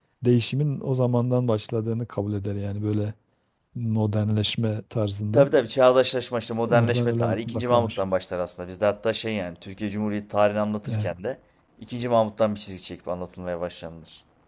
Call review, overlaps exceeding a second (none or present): present